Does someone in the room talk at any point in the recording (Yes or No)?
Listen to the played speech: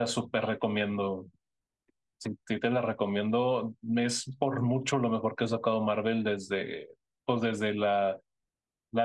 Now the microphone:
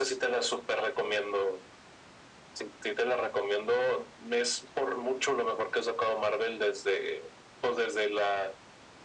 No